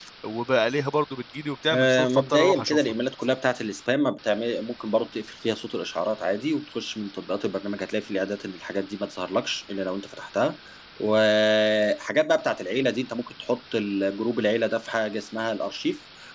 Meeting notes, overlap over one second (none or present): present